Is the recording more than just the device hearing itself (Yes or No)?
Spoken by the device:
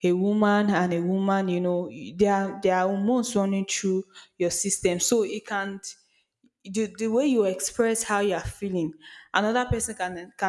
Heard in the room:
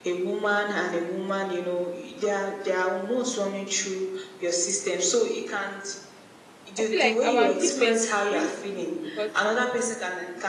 Yes